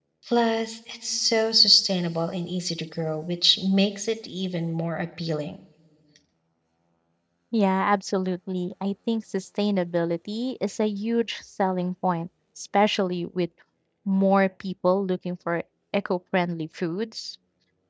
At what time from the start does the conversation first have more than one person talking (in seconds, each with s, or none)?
none